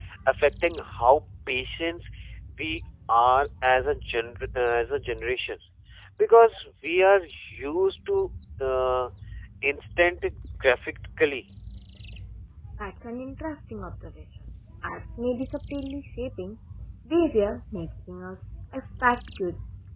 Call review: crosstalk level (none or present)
none